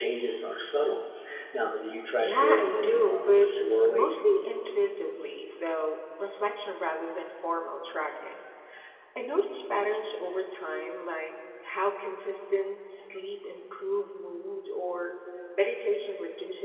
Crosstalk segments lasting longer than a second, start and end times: 2.2-3.5

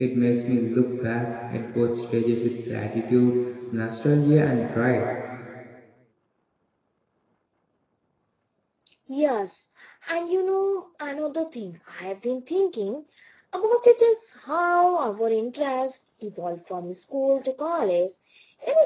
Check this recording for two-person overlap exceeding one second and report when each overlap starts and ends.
none

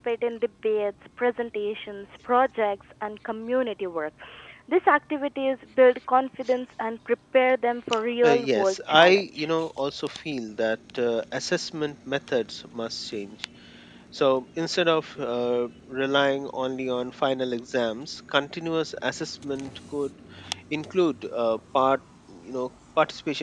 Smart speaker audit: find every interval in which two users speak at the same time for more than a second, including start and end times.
8.2-9.5

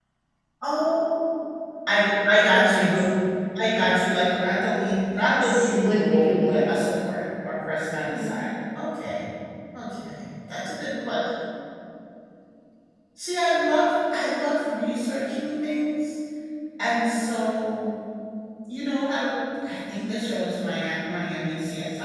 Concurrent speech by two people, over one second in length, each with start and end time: 5.1-6.6

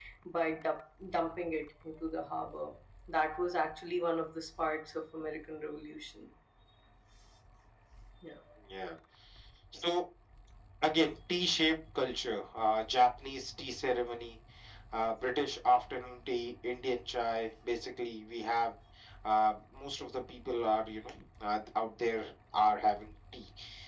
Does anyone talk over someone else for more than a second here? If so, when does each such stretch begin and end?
none

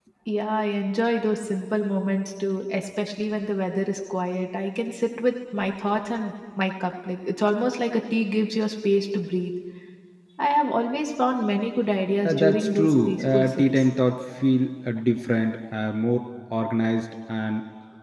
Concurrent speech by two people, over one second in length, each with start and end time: 12.2-13.6

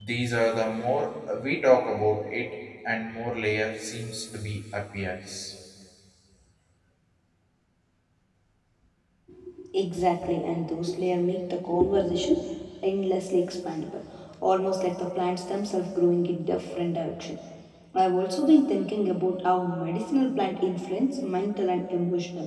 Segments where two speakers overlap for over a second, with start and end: none

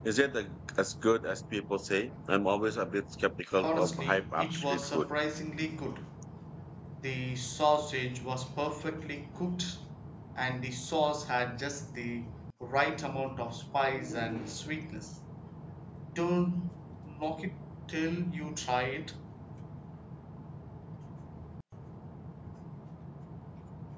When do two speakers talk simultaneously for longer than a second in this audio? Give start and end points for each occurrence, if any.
3.6-5.1

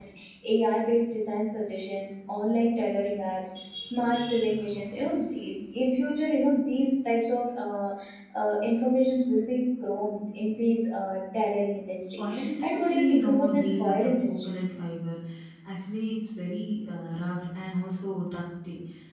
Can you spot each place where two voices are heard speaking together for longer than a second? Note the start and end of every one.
12.2-14.5

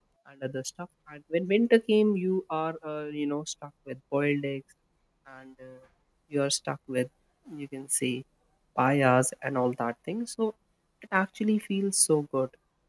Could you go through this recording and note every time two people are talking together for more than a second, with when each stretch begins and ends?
none

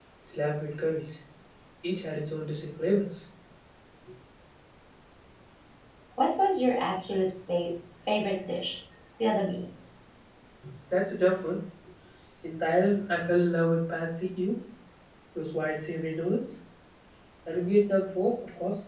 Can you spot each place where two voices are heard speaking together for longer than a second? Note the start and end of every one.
none

